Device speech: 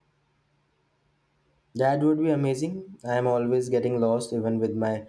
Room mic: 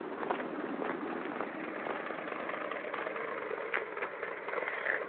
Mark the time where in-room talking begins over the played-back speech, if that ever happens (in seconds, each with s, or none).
none